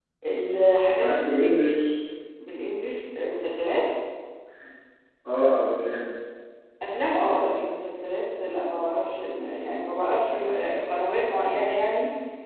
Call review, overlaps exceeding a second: none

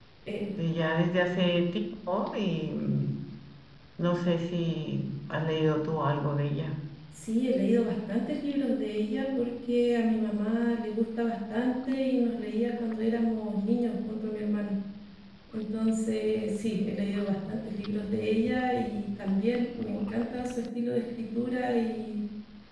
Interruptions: none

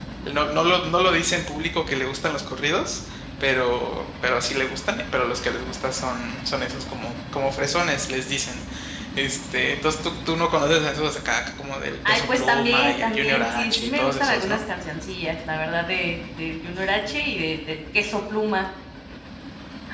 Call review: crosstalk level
present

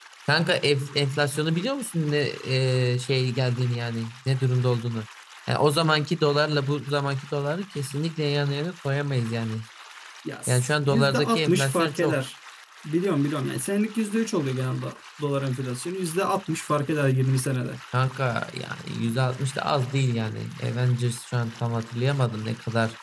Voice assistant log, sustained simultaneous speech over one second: present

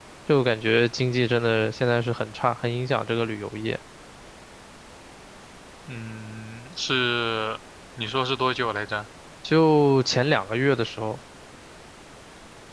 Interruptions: none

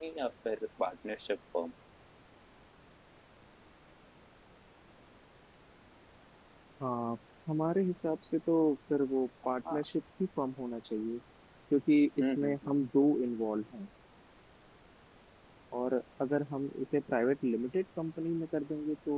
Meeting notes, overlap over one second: none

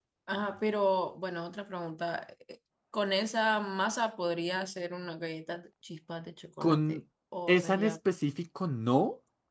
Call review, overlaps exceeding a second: none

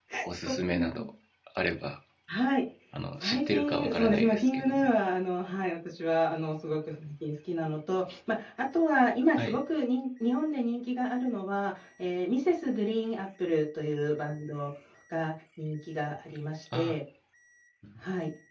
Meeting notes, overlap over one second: present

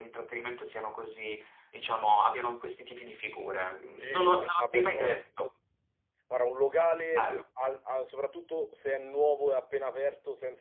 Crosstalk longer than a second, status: present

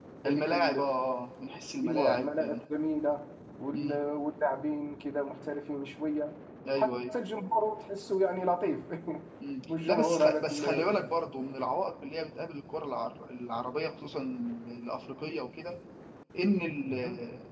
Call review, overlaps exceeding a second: present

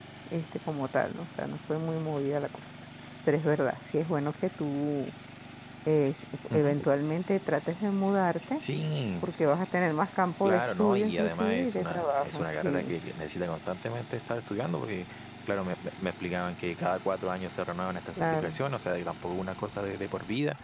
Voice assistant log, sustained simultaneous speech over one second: present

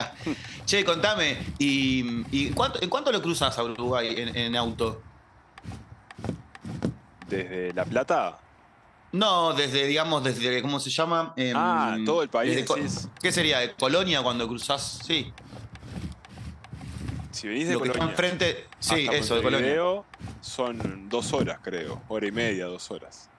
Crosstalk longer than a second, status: present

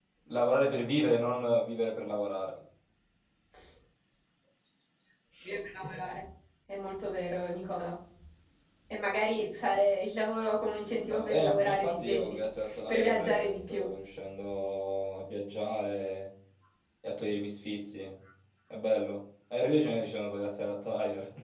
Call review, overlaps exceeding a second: present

